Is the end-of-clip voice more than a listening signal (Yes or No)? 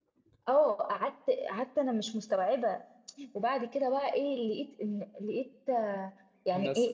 No